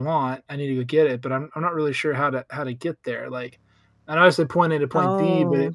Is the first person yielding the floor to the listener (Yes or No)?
No